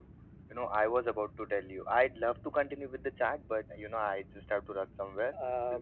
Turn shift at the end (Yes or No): Yes